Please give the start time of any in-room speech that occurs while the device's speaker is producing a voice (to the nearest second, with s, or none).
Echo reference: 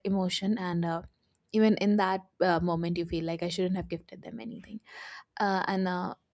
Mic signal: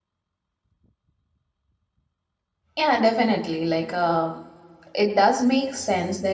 3 s